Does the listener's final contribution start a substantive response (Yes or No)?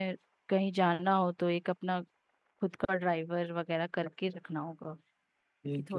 Yes